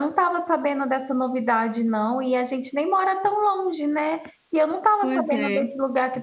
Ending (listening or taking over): listening